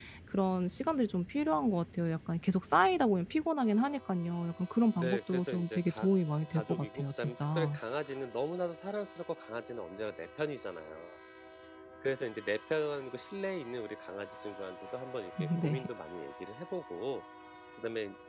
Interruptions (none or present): present